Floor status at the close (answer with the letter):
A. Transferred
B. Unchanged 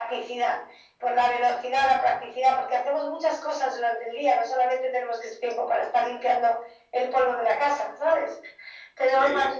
B